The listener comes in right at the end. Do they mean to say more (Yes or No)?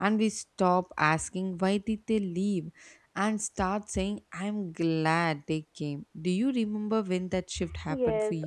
Yes